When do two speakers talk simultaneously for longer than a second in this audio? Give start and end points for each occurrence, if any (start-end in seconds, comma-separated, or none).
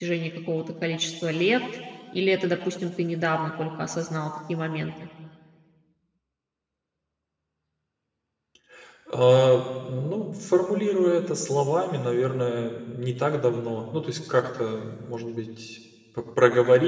none